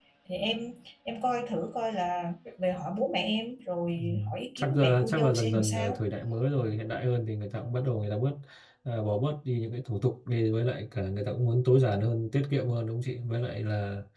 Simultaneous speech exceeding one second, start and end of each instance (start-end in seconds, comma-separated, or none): 4.6-6.0